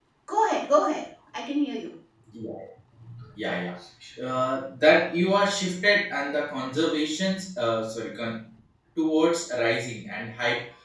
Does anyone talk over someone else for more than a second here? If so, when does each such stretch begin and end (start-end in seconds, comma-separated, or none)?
none